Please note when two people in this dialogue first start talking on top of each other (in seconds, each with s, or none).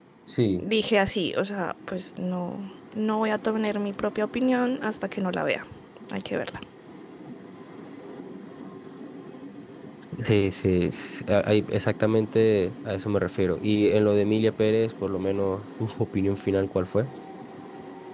none